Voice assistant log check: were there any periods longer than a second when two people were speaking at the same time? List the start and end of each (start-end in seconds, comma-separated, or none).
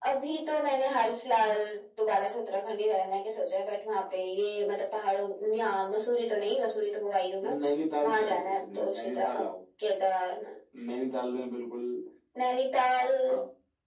8.0-9.5